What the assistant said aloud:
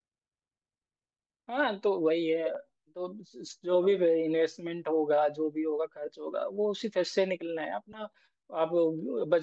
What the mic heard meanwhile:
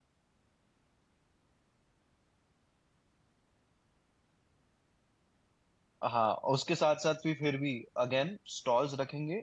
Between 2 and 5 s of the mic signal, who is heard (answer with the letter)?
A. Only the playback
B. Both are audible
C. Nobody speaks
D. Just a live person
C